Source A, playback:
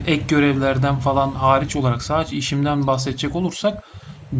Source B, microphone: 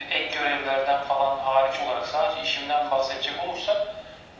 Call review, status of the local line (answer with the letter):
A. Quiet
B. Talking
A